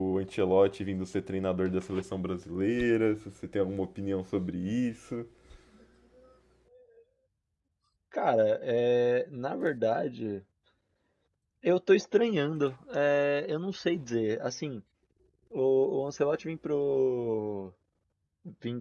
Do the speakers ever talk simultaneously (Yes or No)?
No